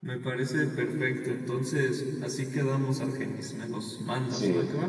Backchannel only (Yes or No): No